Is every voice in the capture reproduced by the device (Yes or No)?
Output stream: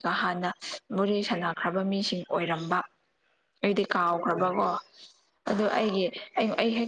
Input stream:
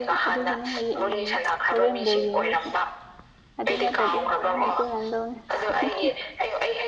No